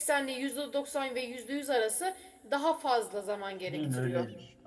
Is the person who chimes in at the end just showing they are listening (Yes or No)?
No